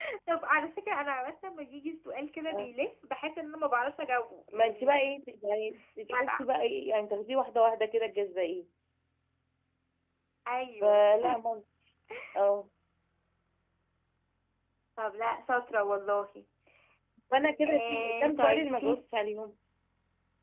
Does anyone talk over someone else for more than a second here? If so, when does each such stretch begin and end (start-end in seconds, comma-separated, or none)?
17.7-18.9